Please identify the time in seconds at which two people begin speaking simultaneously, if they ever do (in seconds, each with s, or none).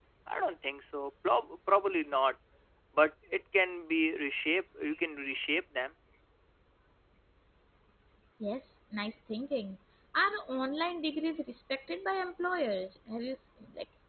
none